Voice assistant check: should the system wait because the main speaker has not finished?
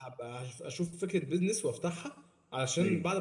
Yes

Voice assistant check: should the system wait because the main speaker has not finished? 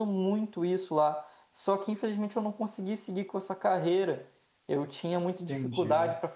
Yes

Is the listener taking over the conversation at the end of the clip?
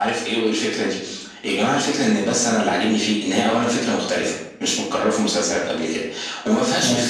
No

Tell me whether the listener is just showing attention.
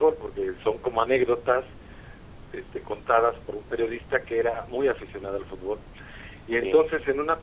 Yes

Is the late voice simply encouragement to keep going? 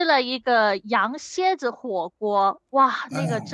Yes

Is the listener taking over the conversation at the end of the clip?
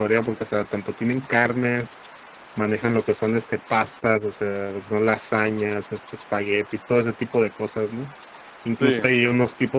No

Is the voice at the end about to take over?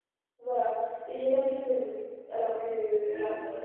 No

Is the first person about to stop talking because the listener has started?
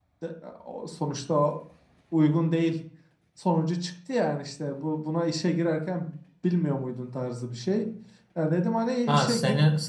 Yes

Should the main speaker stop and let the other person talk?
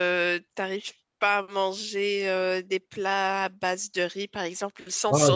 Yes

